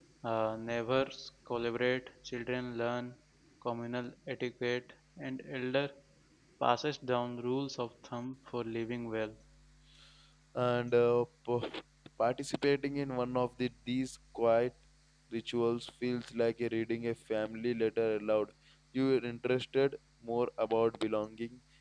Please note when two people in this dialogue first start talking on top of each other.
none

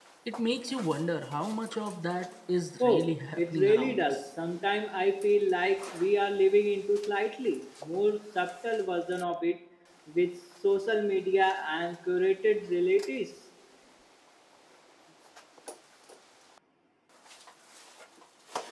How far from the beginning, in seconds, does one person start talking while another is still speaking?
2.8 s

